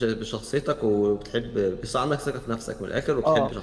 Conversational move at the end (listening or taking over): taking over